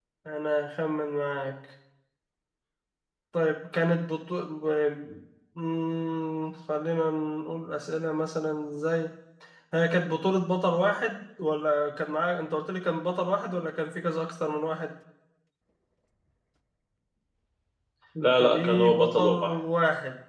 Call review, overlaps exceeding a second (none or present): present